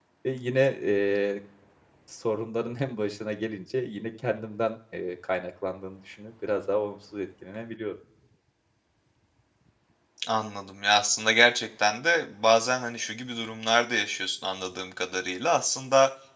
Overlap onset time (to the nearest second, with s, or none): none